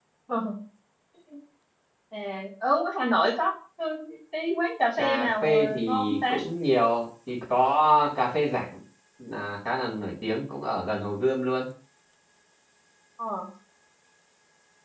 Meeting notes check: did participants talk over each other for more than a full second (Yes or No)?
Yes